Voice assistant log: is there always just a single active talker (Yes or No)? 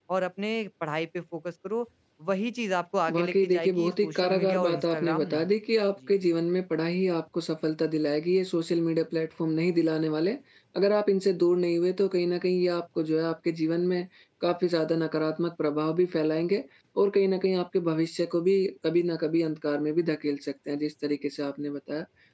No